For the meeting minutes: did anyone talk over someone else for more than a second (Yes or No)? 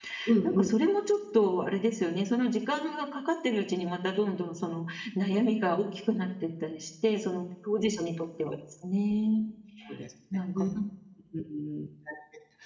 No